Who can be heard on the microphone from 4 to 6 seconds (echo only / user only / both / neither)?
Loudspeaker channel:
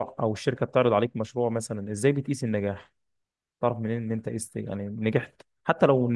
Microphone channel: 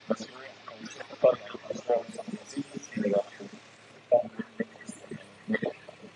echo only